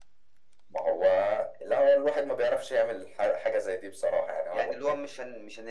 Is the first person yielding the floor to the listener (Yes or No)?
Yes